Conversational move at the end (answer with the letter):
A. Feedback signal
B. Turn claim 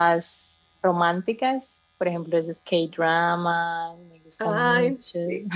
B